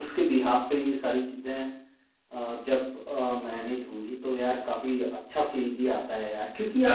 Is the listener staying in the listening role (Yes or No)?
No